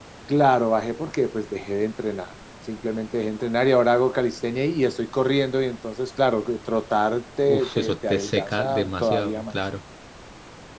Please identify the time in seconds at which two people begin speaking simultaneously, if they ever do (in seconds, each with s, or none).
7.5 s